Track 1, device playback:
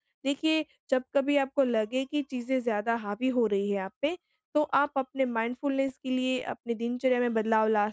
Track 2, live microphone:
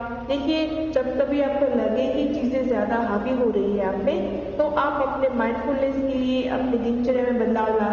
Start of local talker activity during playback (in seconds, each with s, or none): none